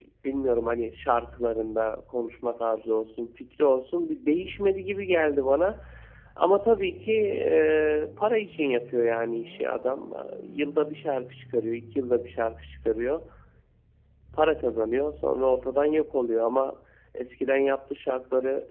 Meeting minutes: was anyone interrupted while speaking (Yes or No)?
No